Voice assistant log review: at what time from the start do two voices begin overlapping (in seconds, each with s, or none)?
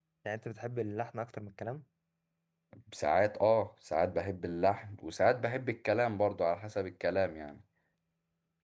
none